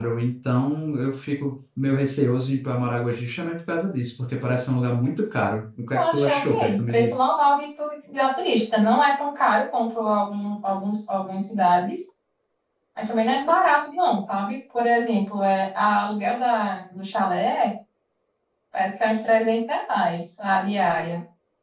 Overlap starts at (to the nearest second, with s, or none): 6 s